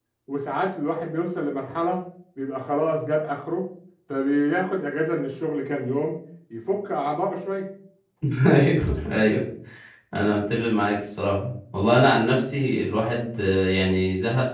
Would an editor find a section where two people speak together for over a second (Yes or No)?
No